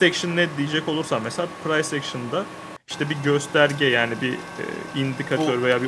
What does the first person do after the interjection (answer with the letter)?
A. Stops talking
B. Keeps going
B